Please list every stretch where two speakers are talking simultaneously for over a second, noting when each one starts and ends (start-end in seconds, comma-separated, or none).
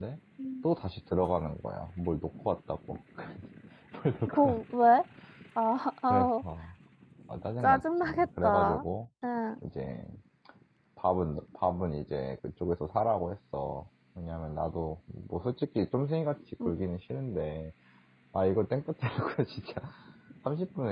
7.6-8.8